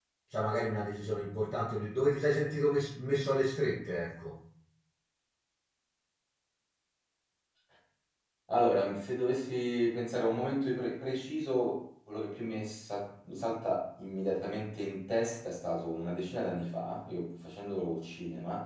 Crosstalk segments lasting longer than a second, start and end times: none

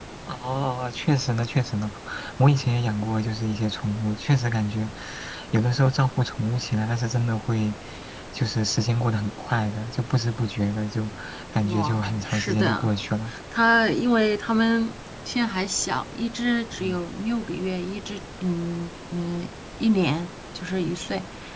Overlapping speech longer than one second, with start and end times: 11.6-12.9

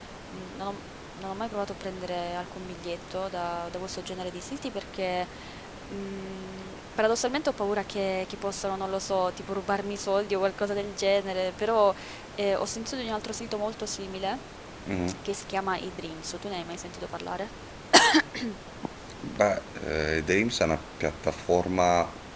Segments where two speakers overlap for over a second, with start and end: none

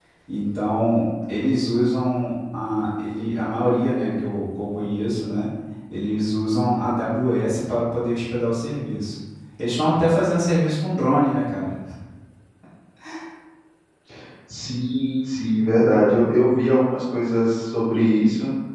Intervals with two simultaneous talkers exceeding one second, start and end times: none

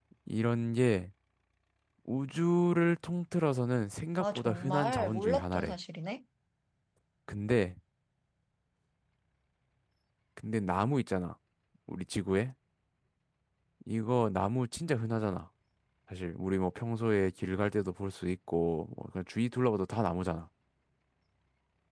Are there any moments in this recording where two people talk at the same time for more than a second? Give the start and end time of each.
4.2-5.8

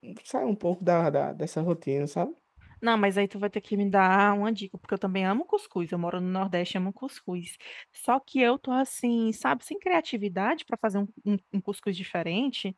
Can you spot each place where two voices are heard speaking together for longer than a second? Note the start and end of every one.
none

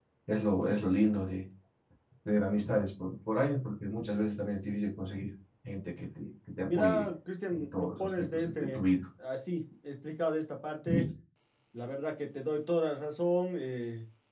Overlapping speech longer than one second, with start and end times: 7.5-8.8

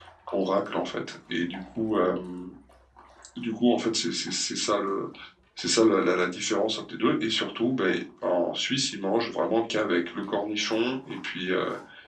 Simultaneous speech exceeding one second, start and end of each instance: none

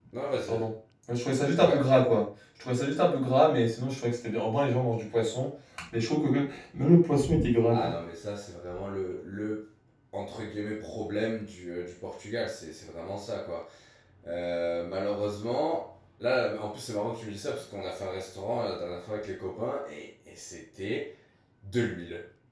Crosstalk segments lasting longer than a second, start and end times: none

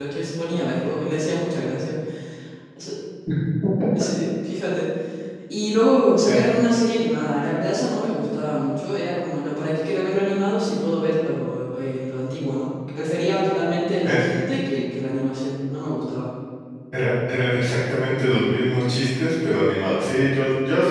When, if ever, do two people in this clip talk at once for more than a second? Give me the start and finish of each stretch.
none

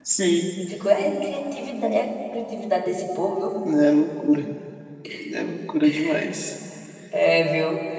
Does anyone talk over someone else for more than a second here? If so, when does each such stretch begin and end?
none

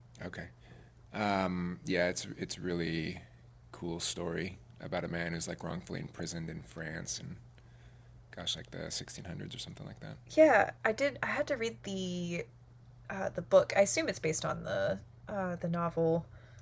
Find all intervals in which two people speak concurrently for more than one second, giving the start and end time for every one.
none

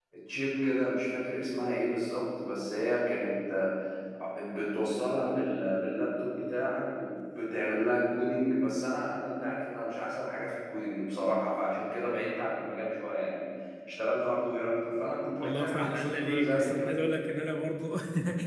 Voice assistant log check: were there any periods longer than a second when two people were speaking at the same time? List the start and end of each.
15.4-16.9

